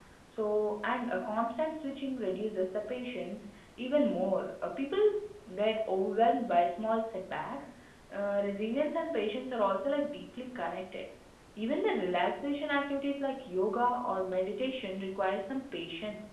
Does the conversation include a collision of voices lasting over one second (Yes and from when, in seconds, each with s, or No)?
No